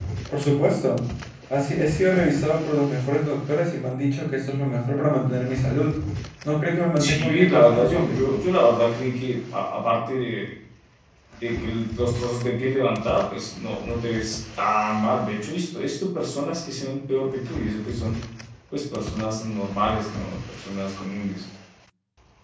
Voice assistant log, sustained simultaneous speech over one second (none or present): present